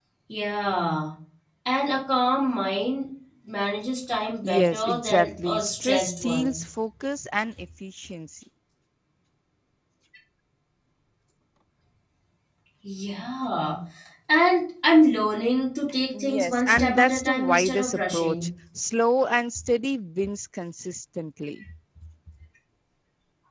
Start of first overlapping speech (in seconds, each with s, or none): 4.4 s